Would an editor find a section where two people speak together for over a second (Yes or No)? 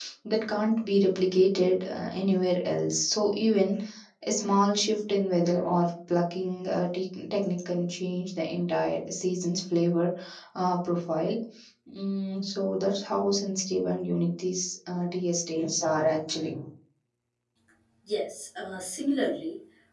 No